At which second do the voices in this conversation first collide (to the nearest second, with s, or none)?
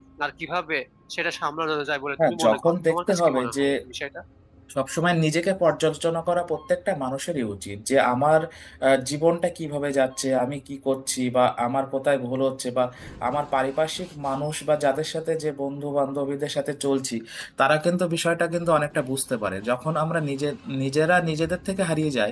2 s